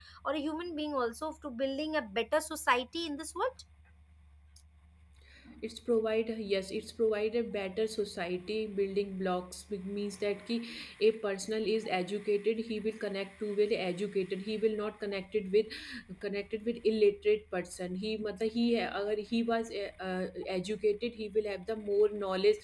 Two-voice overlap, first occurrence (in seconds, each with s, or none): none